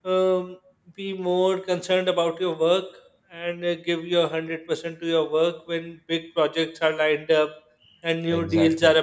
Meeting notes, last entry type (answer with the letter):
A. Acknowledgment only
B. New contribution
A